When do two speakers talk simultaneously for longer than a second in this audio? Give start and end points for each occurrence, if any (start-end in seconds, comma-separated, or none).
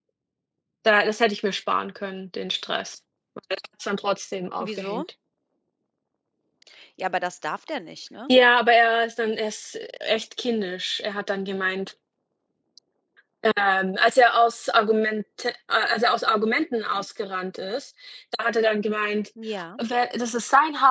none